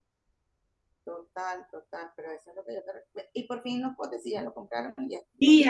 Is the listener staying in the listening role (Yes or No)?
No